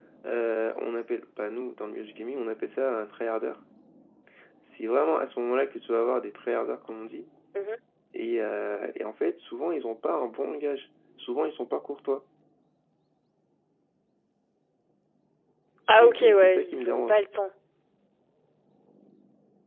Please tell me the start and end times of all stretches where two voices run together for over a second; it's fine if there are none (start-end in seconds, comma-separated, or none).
16.0-17.2